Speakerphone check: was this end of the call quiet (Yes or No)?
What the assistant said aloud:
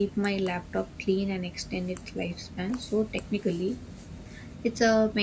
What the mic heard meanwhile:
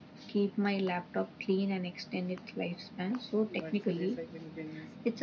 No